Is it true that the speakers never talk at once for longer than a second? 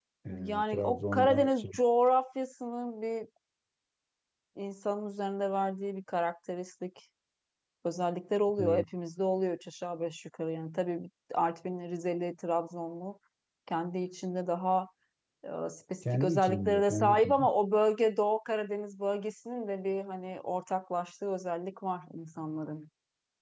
No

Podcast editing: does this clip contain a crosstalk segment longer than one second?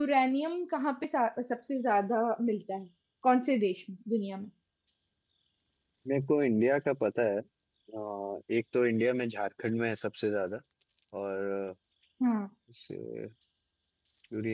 No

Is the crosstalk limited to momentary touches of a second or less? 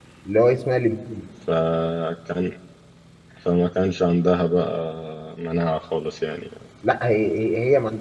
Yes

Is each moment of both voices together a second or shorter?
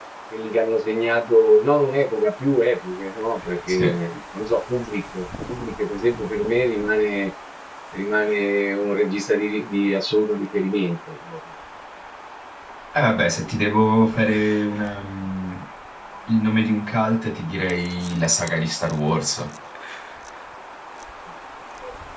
Yes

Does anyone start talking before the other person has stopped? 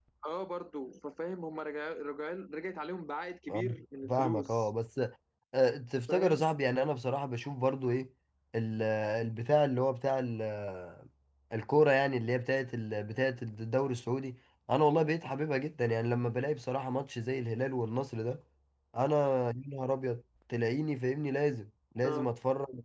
Yes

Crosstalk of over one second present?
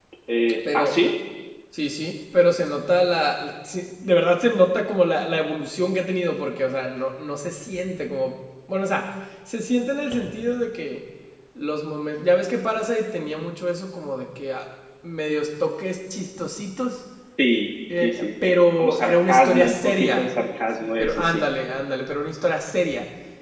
Yes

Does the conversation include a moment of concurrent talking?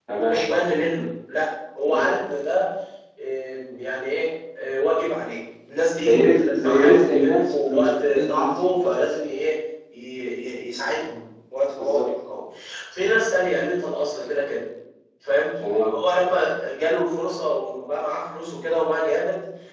Yes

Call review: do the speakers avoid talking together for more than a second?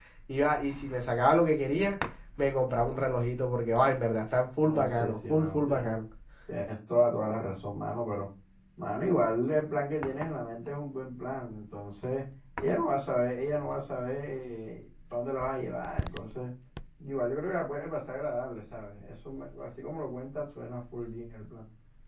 No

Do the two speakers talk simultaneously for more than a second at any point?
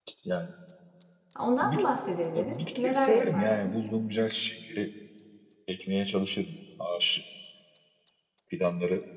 Yes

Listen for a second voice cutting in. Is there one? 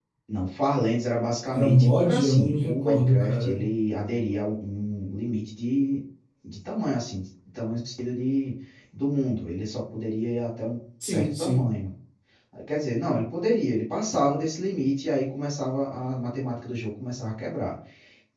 Yes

